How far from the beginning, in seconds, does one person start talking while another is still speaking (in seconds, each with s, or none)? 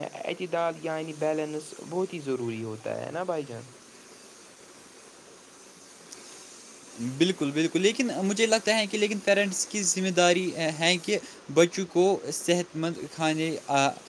none